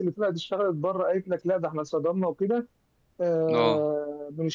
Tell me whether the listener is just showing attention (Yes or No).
Yes